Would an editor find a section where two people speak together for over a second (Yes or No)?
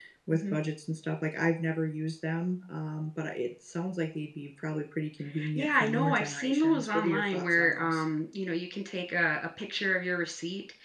Yes